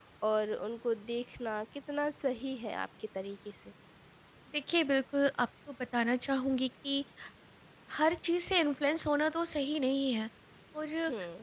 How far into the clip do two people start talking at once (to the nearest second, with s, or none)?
none